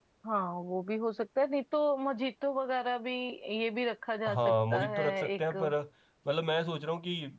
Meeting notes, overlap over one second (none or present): present